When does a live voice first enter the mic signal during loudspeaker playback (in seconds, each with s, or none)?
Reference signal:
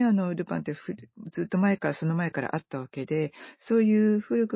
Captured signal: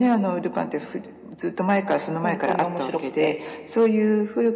2.2 s